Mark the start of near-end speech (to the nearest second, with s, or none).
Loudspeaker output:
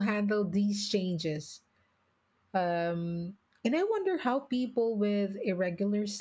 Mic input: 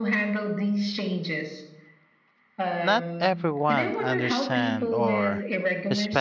3 s